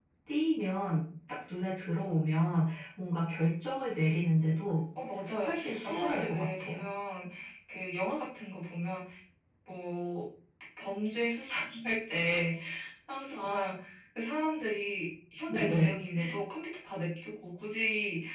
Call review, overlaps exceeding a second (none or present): present